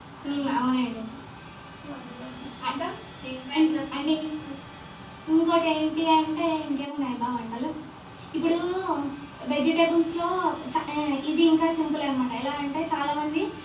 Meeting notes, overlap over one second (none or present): none